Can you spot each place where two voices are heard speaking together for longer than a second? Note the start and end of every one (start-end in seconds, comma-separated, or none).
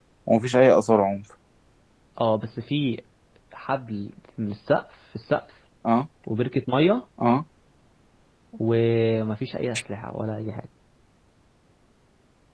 none